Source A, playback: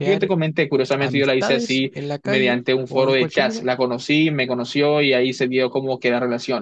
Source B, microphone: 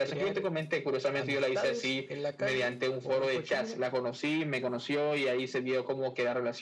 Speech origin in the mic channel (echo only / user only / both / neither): echo only